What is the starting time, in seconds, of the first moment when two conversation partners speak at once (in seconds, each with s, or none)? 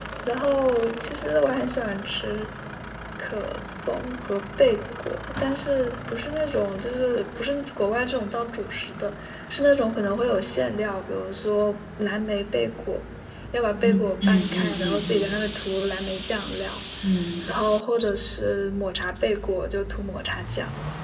13.8 s